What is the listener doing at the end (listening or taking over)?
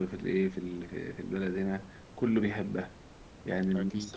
listening